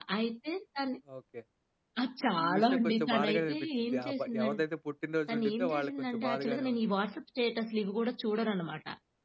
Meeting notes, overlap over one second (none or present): present